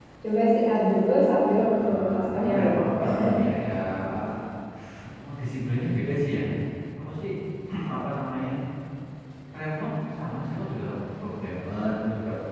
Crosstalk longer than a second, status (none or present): present